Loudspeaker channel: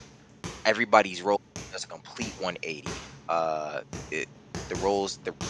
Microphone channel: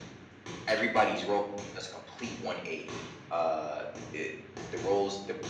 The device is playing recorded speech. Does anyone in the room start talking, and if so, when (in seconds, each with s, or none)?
none